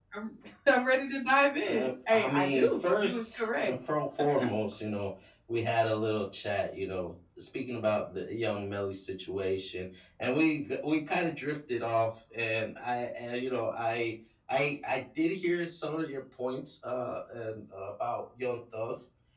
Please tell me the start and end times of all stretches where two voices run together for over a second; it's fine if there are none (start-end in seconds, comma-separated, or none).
1.6-3.7